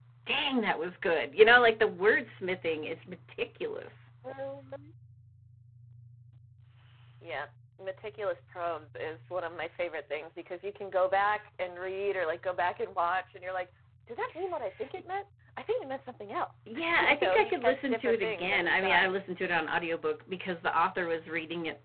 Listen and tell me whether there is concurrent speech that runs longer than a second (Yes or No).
Yes